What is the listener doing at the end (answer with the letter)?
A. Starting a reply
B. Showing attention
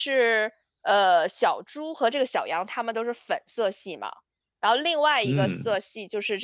B